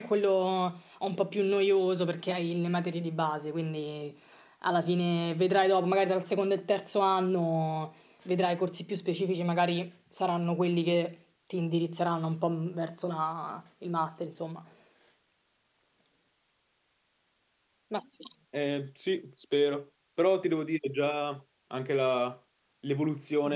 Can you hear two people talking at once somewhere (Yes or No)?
No